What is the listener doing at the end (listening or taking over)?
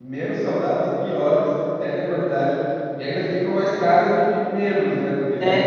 taking over